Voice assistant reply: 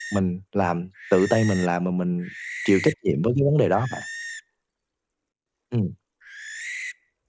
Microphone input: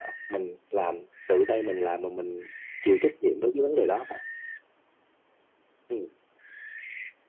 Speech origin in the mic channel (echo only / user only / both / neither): echo only